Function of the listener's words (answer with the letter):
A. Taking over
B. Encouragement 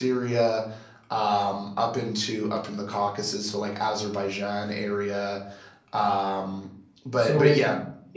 A